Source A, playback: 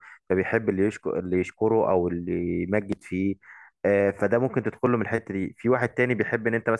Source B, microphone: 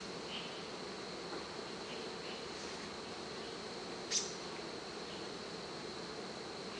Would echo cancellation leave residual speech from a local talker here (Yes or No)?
No